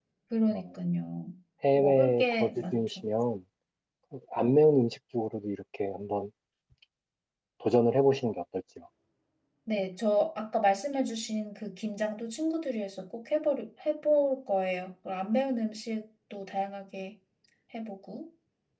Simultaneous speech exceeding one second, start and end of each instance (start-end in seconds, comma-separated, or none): 1.8-3.0